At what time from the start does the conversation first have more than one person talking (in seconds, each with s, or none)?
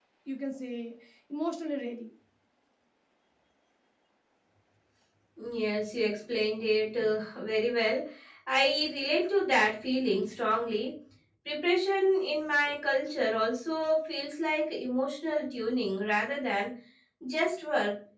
none